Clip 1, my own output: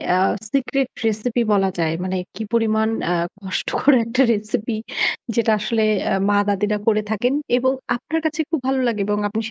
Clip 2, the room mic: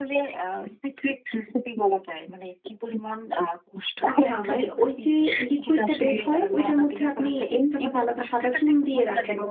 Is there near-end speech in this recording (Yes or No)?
Yes